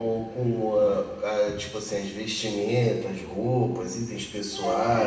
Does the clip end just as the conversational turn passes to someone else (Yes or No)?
Yes